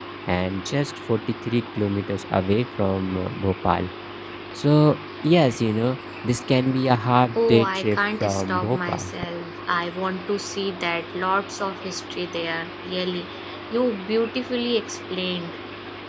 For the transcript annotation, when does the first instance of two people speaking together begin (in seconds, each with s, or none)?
7.3 s